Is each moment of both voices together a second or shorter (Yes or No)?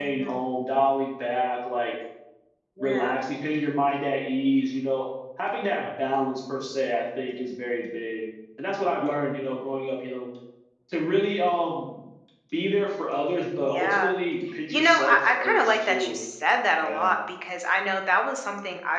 No